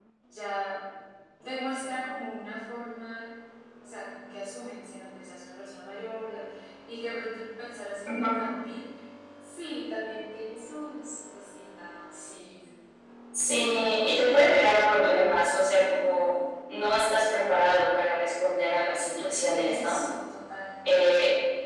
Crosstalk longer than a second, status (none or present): none